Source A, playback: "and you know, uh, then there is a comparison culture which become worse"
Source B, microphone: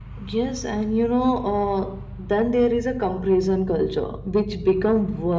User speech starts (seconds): none

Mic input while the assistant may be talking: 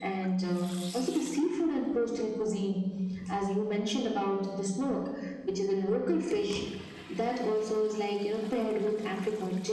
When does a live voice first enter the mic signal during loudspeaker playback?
none

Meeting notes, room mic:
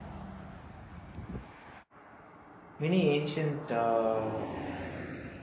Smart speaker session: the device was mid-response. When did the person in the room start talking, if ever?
2.8 s

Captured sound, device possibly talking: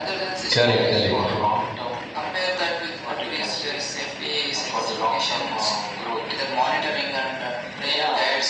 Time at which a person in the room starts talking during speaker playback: 0.5 s

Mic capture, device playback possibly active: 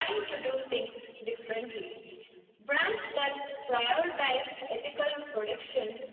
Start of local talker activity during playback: none

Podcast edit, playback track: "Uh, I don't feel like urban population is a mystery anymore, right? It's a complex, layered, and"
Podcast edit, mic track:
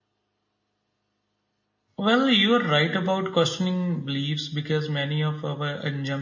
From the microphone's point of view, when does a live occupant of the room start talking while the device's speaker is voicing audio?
2.0 s

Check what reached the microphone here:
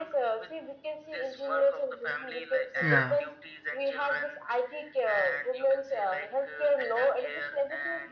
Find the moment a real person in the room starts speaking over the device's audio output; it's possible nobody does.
2.8 s

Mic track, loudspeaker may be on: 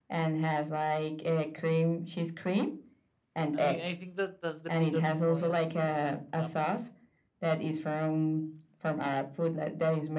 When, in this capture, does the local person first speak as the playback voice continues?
3.5 s

